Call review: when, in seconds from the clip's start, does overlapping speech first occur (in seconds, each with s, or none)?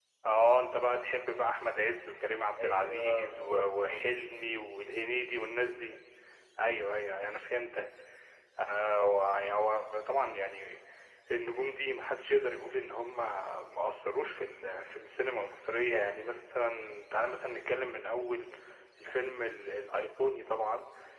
2.6 s